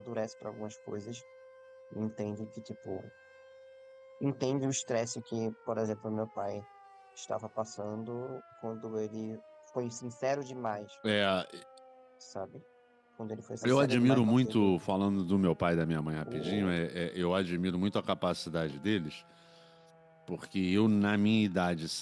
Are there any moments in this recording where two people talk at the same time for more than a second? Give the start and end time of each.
13.6-14.9

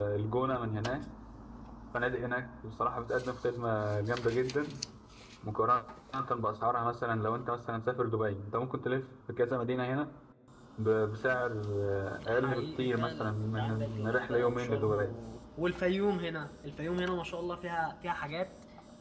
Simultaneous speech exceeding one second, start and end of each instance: 12.3-15.2

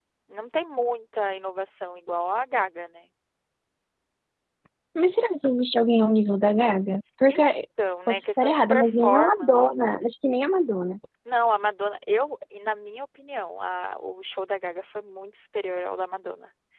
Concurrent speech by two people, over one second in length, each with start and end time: 8.1-9.7

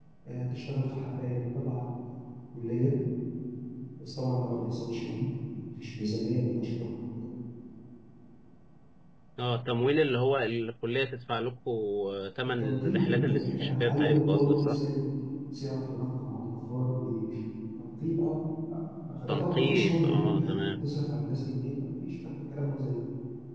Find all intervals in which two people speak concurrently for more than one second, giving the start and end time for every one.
12.6-14.8, 19.3-20.6

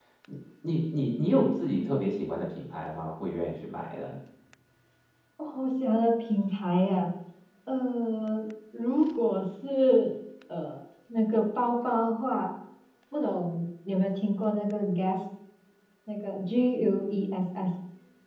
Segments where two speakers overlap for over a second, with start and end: none

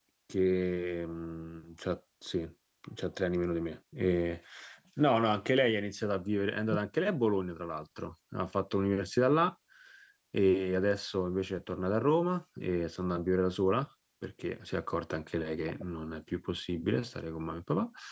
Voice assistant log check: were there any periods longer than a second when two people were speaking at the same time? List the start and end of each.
none

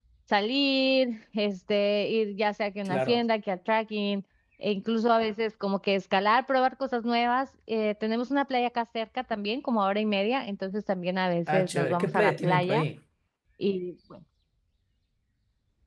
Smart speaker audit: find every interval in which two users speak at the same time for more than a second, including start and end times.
11.5-12.8

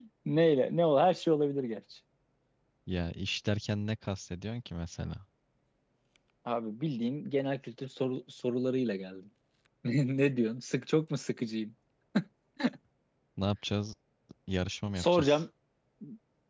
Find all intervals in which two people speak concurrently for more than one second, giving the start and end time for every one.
none

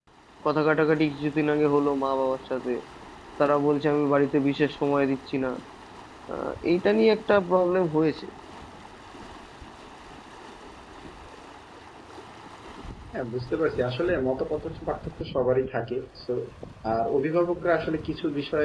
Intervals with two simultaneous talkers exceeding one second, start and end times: none

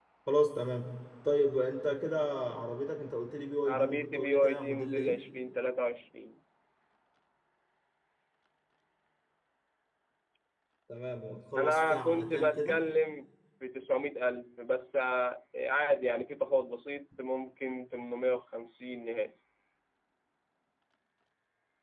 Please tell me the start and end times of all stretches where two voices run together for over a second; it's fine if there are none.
3.6-5.1, 11.6-12.8

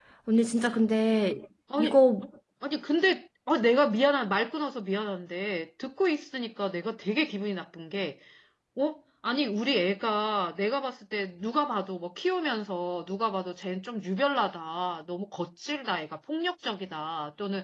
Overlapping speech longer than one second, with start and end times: none

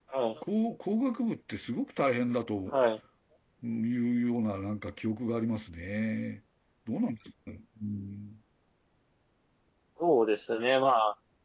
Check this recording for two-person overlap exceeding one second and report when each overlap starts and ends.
none

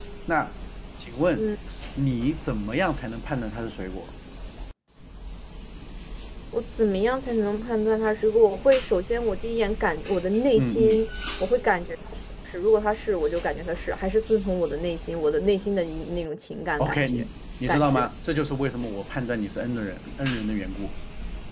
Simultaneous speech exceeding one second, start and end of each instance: none

